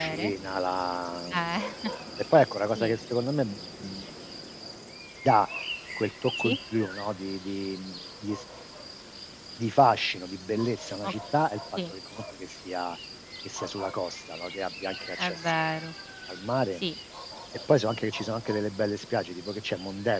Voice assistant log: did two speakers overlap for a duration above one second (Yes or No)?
No